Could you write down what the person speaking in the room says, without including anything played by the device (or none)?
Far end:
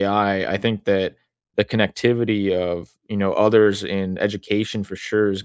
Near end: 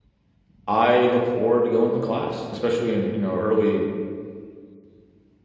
I look forward to going to class, especially in, you know, early